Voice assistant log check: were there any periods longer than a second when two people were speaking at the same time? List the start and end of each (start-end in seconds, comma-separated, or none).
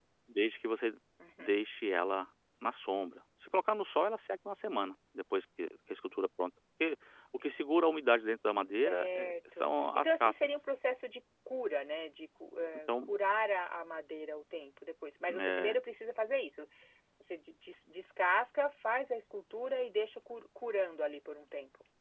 8.8-10.6